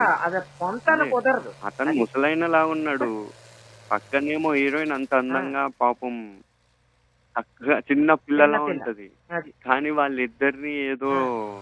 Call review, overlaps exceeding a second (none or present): none